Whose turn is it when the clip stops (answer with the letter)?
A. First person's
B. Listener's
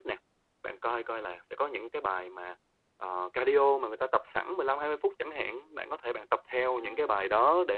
A